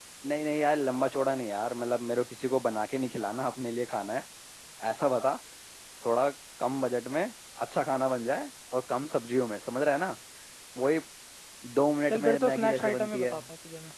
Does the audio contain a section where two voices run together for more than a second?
Yes, from 12.1 s

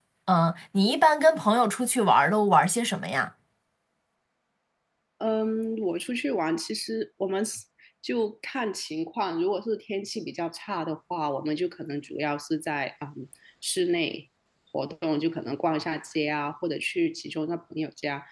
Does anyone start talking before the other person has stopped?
No

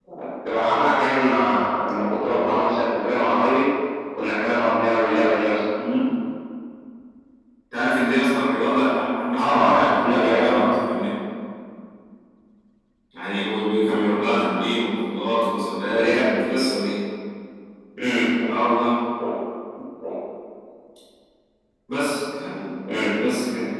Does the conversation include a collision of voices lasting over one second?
Yes, from 9.4 s

